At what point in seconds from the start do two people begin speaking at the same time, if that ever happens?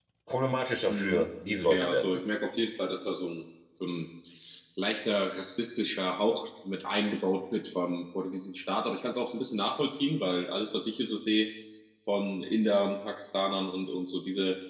0.8 s

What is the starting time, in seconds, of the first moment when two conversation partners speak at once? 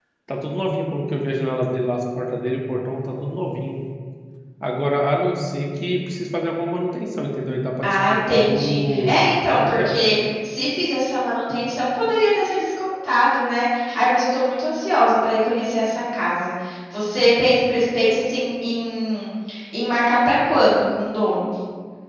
7.8 s

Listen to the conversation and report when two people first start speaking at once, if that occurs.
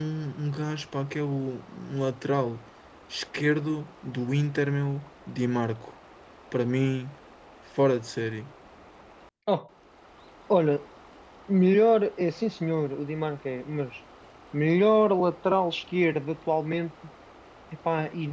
none

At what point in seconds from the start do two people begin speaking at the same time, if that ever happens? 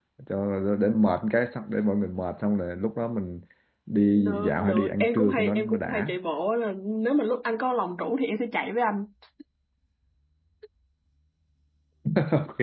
4.2 s

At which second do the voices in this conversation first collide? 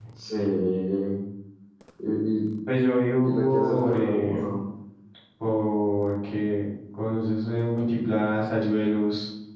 3.2 s

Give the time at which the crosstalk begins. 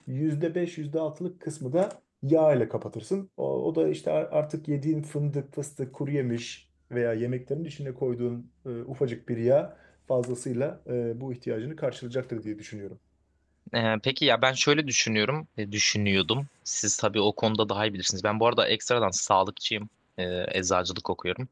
none

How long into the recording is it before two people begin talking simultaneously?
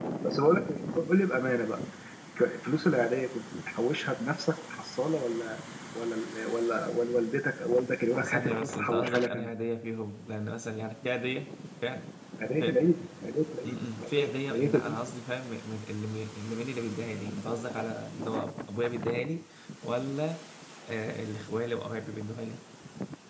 8.2 s

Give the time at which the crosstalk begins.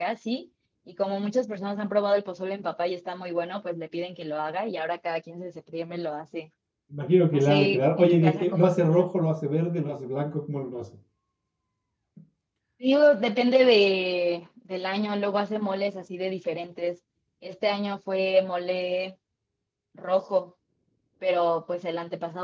7.3 s

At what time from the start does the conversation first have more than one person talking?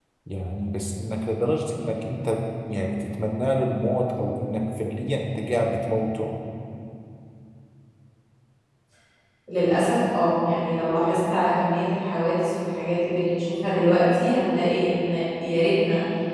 none

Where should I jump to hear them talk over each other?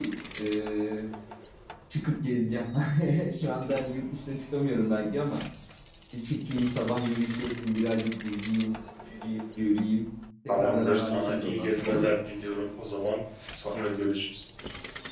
10.5 s

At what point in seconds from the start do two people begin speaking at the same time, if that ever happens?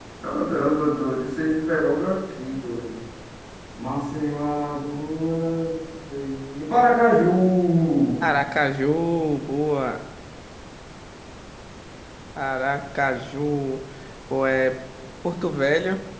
none

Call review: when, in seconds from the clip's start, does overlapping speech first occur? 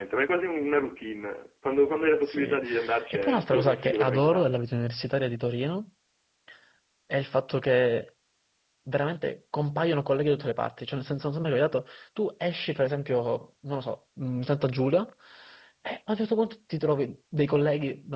2.3 s

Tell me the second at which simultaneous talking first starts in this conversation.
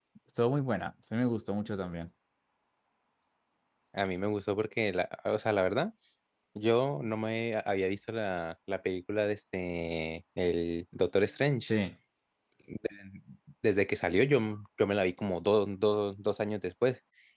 none

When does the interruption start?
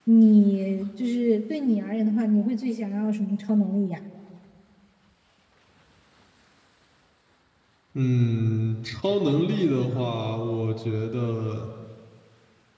none

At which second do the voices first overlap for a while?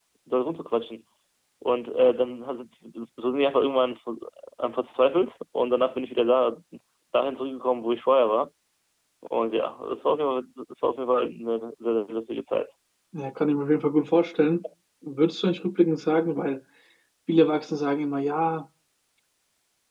none

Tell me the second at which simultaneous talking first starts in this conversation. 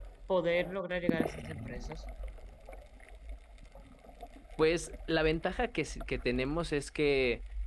none

